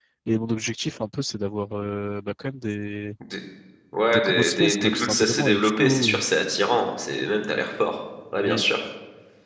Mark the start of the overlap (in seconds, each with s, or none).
4.1 s